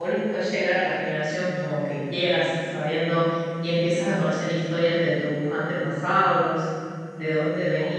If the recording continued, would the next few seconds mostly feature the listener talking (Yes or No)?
No